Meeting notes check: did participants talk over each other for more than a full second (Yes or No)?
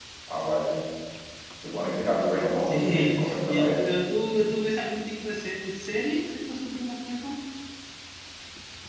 Yes